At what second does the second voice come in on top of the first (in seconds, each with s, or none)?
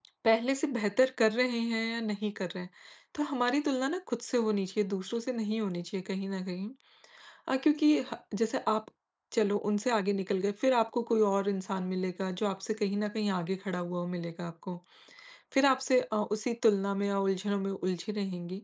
none